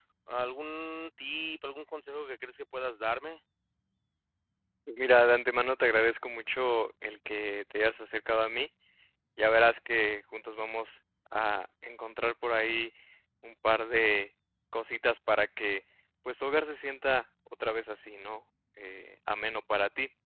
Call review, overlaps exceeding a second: none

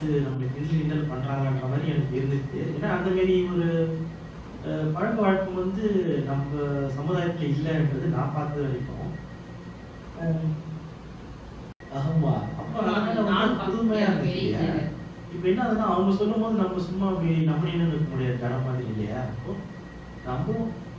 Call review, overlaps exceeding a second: present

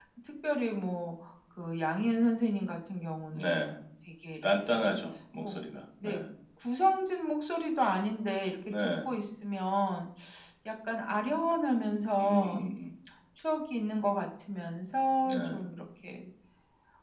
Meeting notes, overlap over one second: none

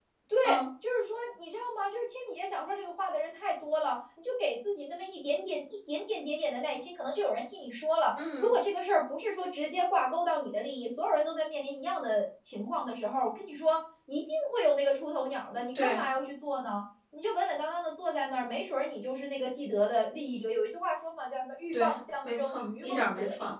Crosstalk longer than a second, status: present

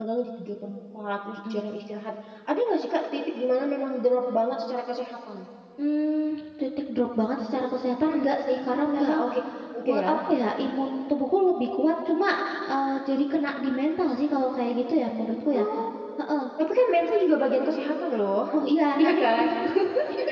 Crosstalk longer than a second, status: none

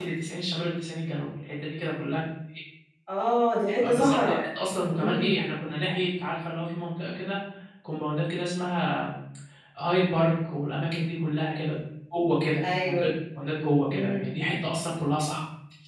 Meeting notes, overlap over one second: none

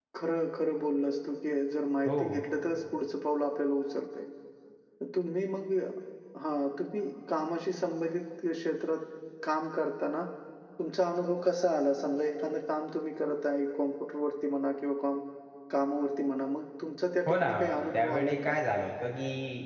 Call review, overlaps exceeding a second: present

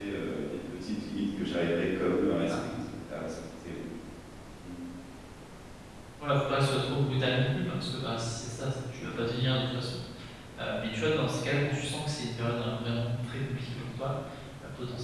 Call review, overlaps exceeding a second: none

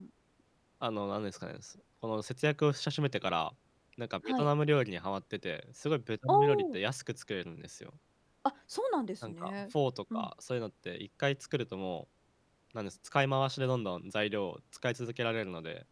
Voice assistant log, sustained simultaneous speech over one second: none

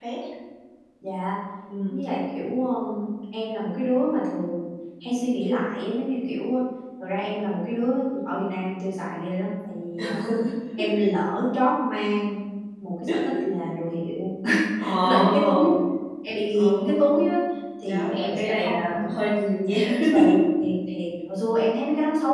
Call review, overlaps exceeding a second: present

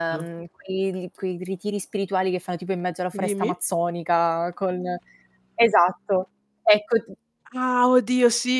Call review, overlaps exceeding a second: none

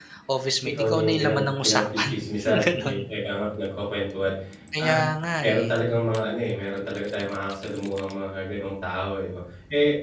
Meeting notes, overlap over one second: present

